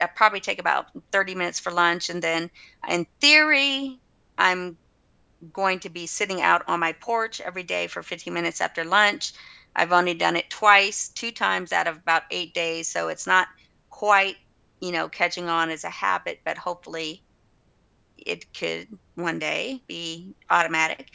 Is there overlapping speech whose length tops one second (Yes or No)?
No